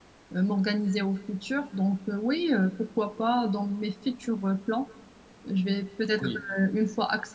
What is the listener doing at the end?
listening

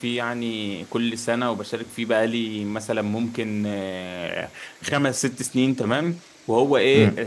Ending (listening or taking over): listening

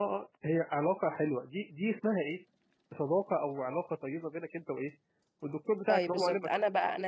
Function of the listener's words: taking over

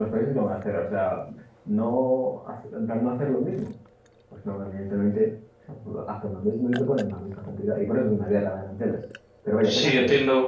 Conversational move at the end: taking over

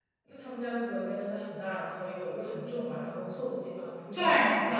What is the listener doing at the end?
taking over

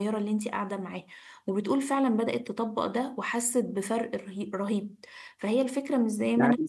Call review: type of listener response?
listening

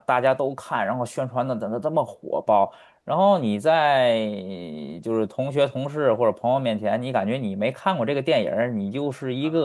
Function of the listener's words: taking over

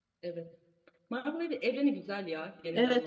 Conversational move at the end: taking over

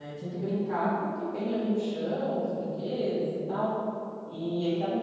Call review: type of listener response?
listening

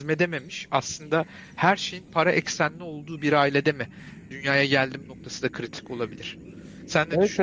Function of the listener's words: taking over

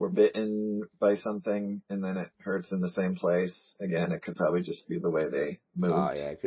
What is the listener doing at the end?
taking over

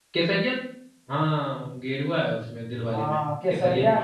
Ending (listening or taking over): taking over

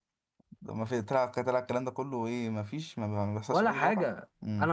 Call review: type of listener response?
taking over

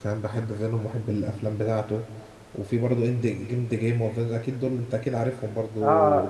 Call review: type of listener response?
taking over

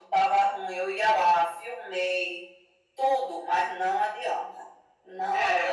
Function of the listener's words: listening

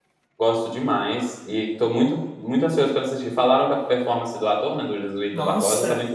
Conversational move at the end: taking over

